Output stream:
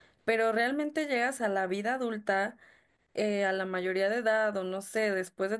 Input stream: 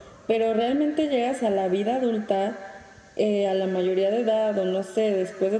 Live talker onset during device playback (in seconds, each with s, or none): none